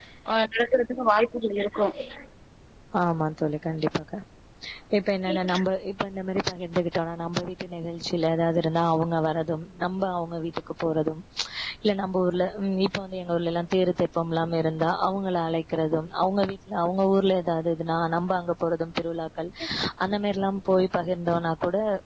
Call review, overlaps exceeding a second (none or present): none